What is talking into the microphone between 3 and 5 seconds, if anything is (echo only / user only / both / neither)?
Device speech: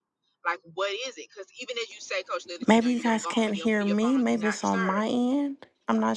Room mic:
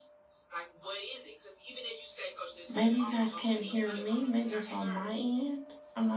both